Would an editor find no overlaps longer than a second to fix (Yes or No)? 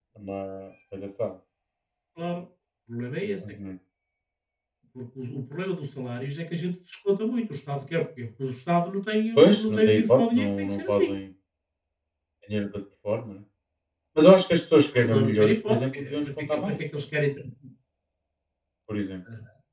No